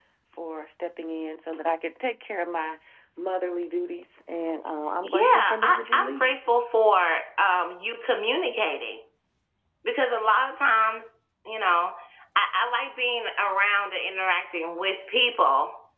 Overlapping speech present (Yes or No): Yes